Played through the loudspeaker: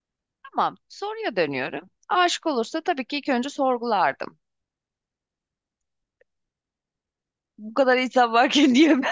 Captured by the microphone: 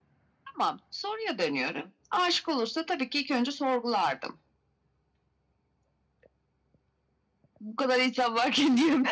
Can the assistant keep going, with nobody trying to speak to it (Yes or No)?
Yes